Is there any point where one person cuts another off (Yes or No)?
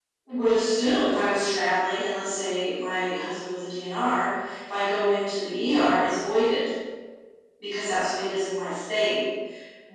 No